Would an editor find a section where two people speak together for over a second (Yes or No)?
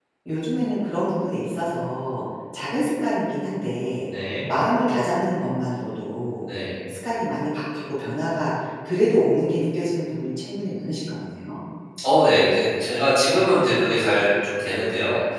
No